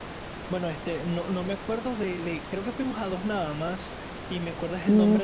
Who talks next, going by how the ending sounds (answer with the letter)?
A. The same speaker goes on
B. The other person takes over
A